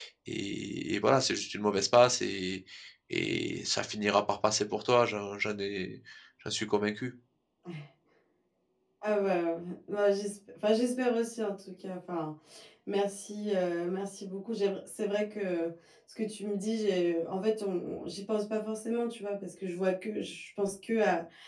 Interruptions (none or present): none